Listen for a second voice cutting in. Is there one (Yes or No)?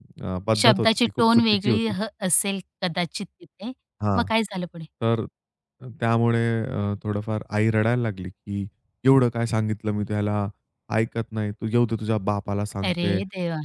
Yes